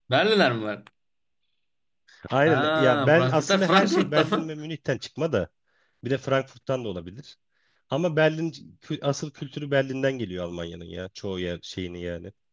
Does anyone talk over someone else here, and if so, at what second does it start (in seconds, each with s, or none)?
2.5 s